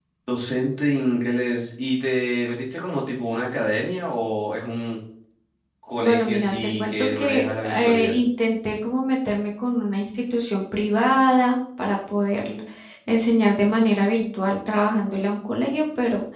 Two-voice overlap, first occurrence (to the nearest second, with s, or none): 6 s